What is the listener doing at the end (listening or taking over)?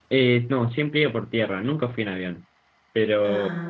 listening